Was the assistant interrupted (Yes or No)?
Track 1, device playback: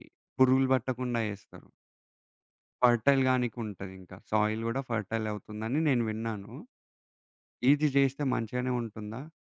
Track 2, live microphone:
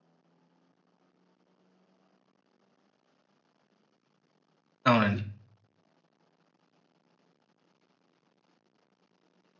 Yes